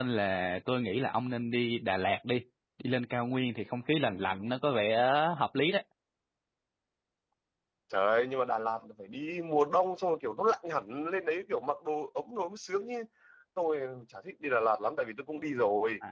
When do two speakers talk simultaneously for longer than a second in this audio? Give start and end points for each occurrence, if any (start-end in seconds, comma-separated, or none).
none